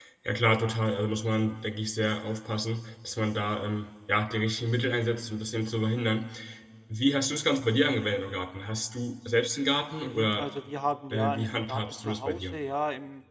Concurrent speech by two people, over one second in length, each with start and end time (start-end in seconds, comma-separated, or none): 11.1-12.5